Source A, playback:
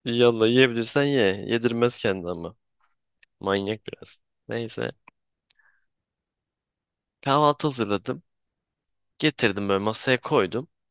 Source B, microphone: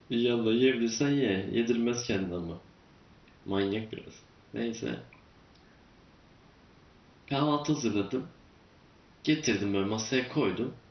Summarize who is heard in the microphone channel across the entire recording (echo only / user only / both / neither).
echo only